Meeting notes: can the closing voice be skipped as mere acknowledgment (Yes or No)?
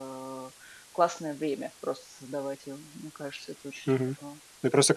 No